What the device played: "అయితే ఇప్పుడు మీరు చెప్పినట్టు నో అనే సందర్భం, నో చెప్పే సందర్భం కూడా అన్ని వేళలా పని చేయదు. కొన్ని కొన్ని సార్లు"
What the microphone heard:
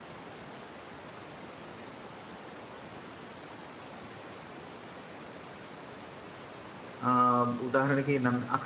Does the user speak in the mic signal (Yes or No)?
Yes